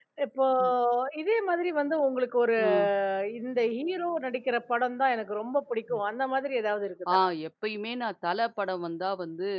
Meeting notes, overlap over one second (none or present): none